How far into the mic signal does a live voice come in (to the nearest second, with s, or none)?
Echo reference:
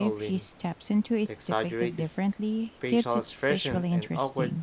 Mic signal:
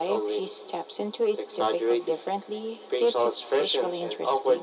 none